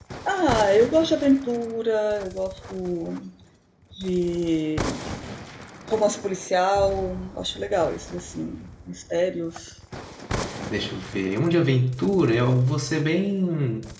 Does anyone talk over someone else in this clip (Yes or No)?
No